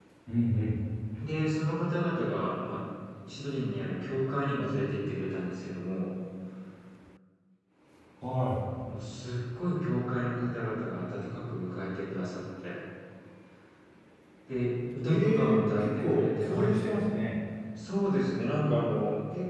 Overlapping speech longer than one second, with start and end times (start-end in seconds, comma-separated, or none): 15.0-16.7